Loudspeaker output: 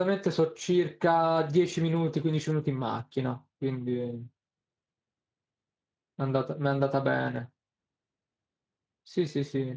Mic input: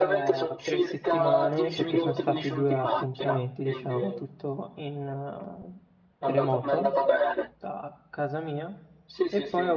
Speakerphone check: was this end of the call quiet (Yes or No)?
No